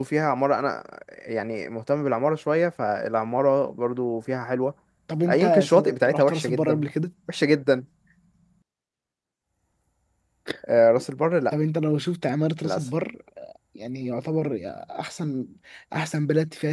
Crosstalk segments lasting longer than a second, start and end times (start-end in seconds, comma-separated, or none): 5.3-6.8